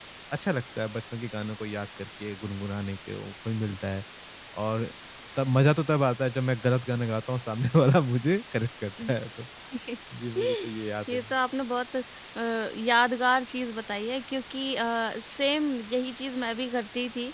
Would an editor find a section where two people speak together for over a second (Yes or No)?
No